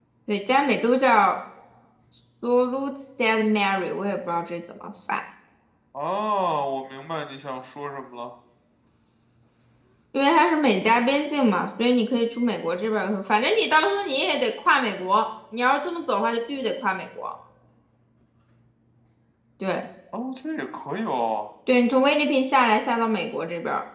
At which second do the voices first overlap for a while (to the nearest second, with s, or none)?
none